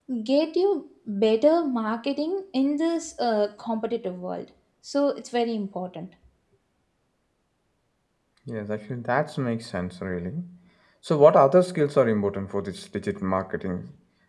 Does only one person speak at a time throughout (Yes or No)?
Yes